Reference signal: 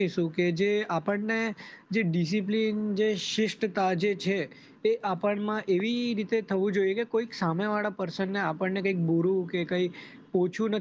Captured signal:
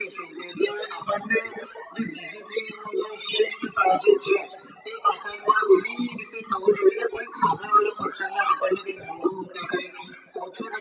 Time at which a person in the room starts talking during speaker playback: none

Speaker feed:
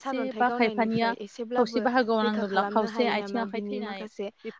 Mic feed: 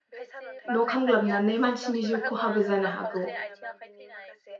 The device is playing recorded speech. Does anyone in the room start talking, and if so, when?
0.8 s

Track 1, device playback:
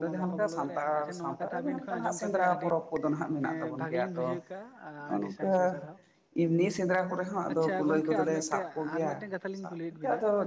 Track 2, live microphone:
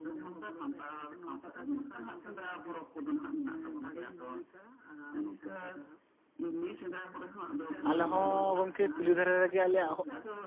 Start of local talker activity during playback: 7.8 s

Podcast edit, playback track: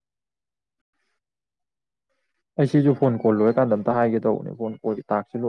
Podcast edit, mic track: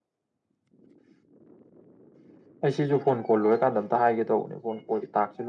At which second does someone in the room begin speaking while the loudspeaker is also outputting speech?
none

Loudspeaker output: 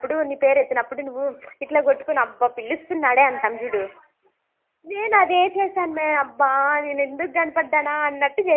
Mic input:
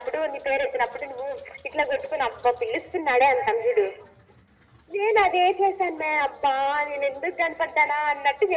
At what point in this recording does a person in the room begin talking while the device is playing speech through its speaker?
none

